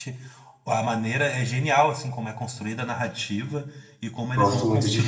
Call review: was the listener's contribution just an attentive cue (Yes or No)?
No